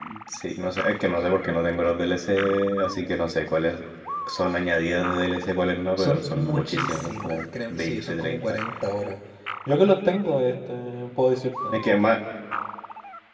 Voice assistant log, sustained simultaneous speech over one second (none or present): present